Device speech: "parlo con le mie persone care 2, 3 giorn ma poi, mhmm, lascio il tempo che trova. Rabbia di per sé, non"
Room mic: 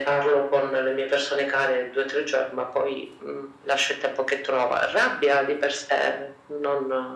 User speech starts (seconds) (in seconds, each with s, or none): none